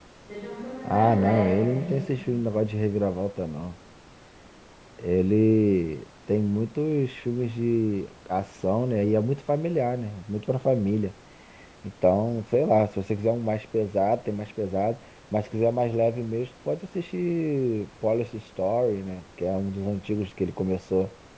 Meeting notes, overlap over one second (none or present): present